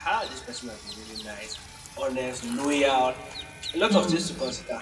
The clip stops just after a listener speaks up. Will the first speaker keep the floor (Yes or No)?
Yes